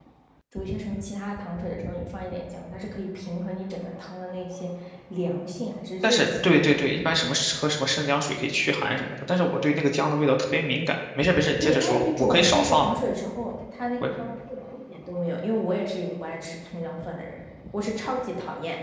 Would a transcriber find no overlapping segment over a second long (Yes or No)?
No